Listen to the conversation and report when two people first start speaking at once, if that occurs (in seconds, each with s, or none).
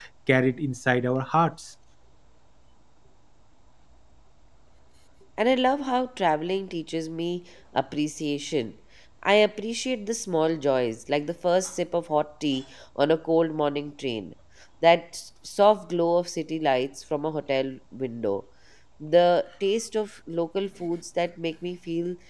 none